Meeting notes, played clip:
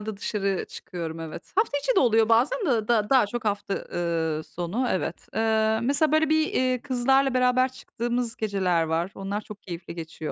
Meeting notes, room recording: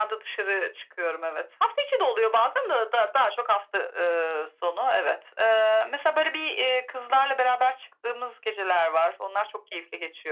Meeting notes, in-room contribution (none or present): none